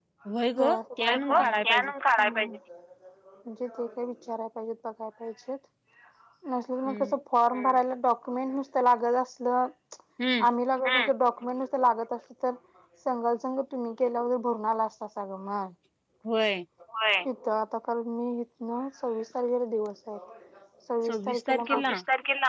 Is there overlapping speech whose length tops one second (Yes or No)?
Yes